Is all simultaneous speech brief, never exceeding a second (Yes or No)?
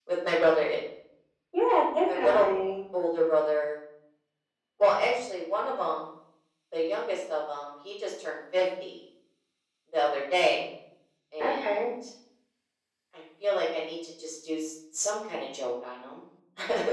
Yes